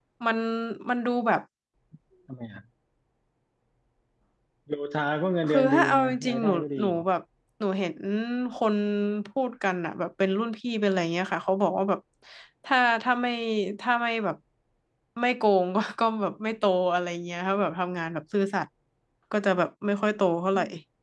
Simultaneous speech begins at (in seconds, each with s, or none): 5.5 s